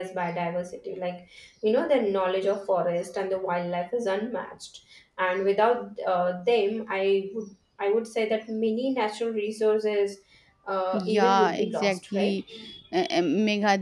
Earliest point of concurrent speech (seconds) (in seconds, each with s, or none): 10.9 s